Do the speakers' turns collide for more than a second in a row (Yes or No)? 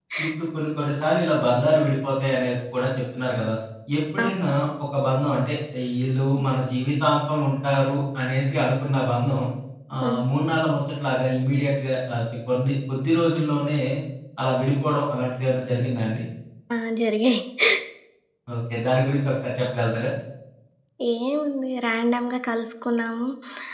No